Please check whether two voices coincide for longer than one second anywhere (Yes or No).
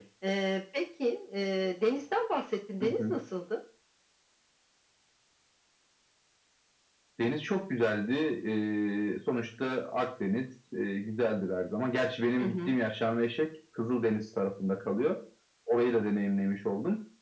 No